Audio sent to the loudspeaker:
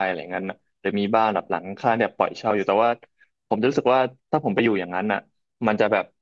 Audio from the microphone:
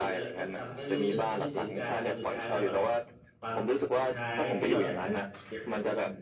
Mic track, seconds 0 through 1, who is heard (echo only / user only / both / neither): both